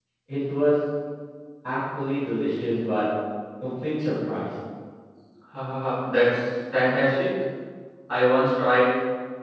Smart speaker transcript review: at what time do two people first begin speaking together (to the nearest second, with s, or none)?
none